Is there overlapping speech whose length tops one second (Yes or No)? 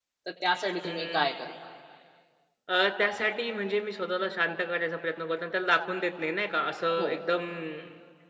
No